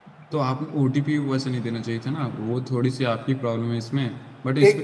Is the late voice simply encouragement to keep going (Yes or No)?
No